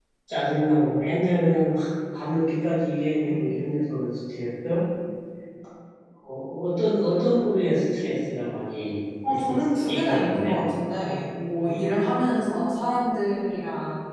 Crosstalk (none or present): present